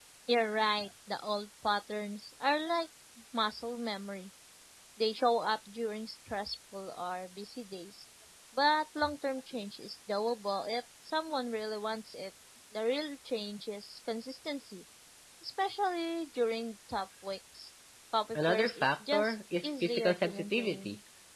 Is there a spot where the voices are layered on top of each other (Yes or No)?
Yes